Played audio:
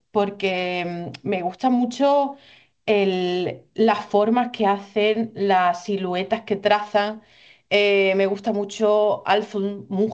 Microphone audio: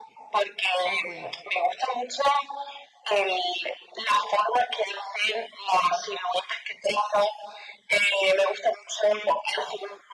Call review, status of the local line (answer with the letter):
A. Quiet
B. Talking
B